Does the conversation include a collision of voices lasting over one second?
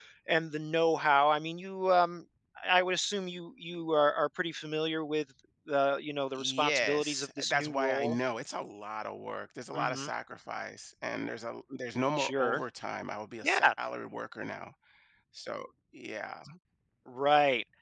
Yes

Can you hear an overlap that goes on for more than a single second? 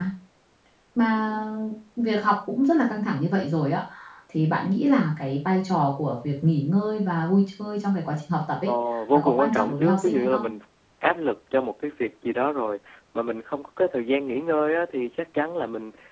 Yes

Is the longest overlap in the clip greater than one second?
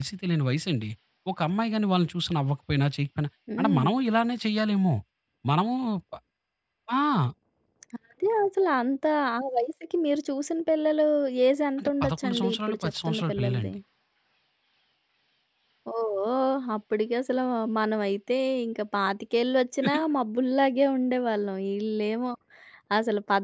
Yes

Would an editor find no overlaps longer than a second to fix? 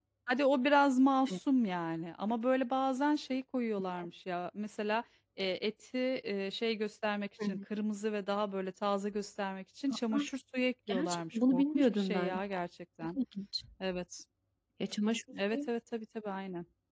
No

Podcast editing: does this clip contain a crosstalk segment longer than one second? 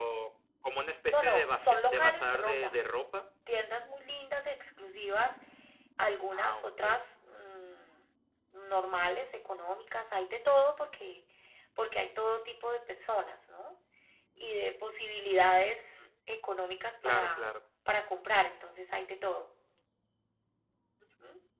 Yes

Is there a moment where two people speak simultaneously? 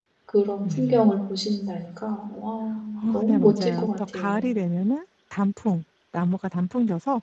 Yes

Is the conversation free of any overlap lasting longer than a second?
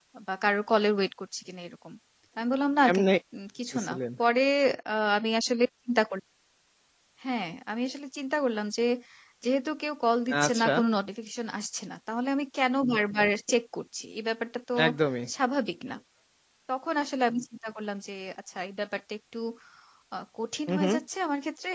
Yes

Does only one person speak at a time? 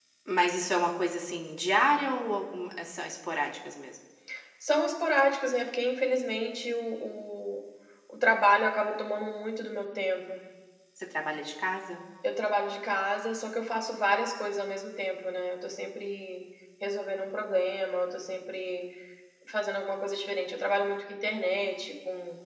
Yes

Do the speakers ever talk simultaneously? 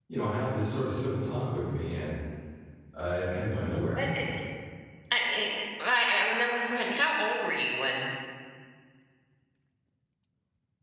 No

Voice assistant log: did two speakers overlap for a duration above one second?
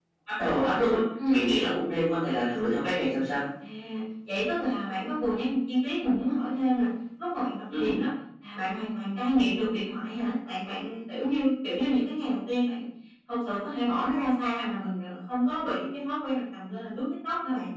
No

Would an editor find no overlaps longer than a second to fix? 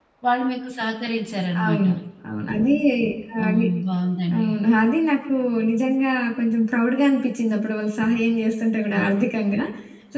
Yes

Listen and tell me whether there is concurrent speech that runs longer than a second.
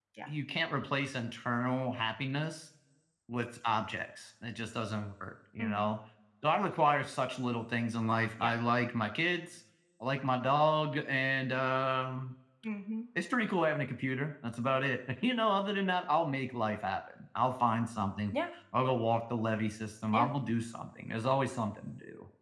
No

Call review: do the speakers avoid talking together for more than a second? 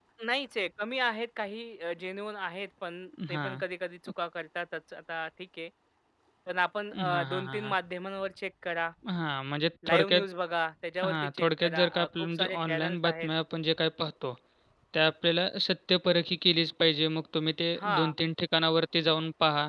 No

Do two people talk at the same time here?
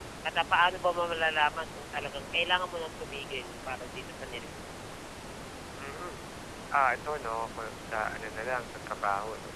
No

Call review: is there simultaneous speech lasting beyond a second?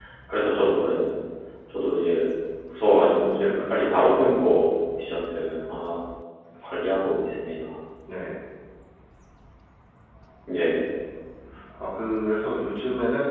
Yes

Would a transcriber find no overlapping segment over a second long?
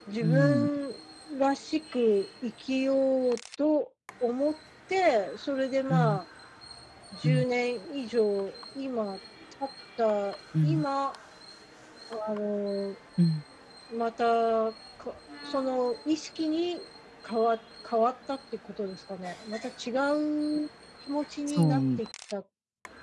Yes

